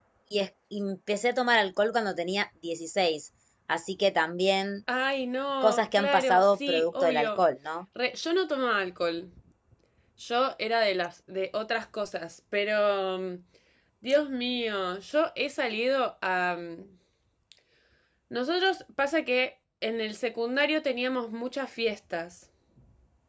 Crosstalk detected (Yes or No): Yes